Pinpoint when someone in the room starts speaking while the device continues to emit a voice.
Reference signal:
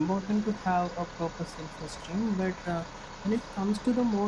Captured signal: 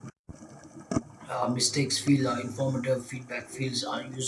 1.3 s

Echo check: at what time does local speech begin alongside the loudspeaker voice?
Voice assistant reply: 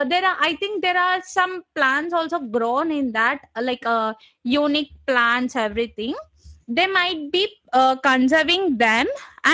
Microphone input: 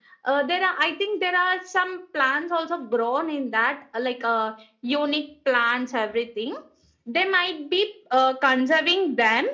none

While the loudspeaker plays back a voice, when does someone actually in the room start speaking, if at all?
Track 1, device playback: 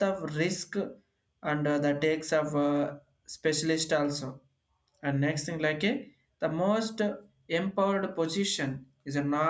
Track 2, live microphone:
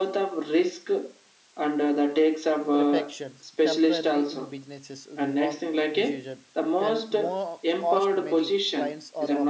2.8 s

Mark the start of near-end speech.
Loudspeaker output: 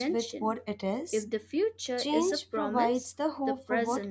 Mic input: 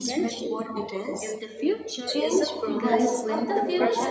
2.6 s

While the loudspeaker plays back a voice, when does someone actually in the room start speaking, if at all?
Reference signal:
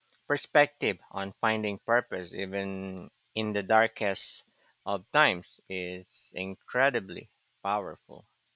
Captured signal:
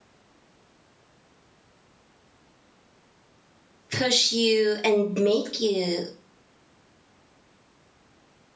3.9 s

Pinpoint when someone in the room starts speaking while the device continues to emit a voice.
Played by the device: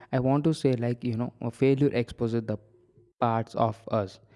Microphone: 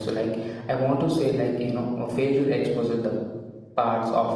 none

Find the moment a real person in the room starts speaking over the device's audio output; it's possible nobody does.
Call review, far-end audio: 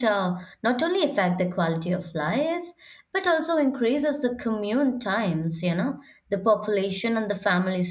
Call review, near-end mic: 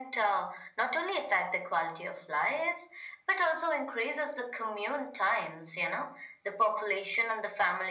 none

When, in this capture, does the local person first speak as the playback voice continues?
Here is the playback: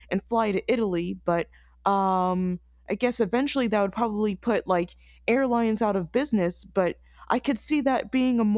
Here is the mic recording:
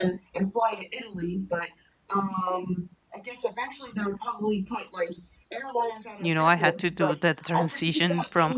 6.2 s

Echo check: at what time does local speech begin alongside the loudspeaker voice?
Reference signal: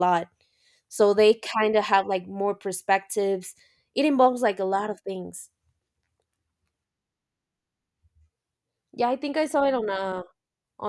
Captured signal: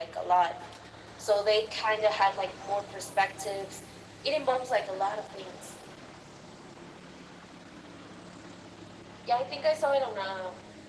none

